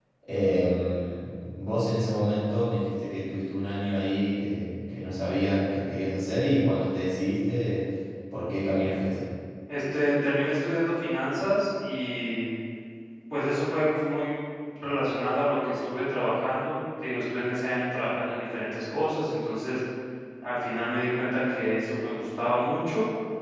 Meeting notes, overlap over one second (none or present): none